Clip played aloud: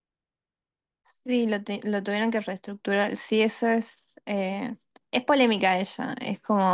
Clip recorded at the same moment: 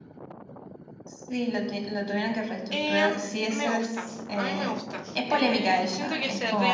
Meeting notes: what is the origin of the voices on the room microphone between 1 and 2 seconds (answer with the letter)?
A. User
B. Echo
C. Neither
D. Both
B